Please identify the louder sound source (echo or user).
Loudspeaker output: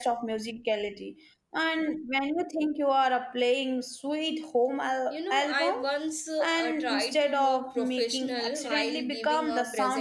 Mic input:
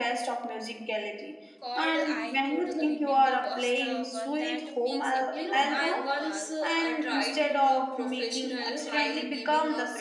echo